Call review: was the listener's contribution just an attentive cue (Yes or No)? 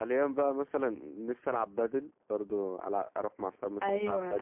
No